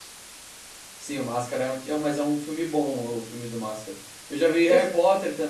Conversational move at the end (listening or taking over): listening